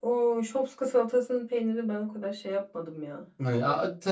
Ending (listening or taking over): taking over